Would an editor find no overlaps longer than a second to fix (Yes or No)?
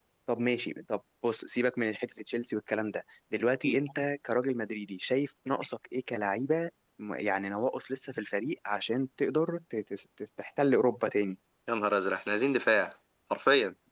Yes